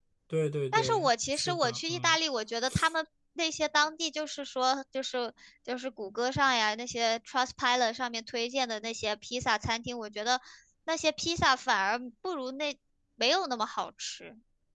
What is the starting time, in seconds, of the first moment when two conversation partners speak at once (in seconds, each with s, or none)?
0.7 s